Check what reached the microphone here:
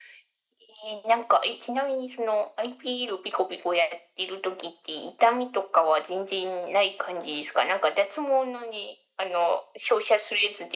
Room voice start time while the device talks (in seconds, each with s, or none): none